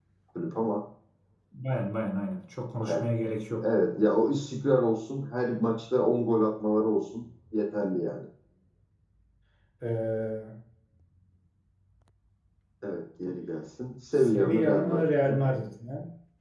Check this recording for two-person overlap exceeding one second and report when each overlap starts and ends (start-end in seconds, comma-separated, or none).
14.1-15.4